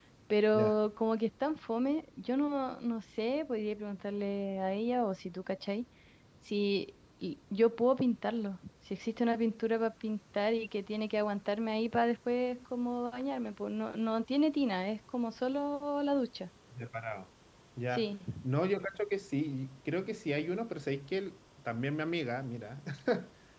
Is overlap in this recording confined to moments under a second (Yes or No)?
Yes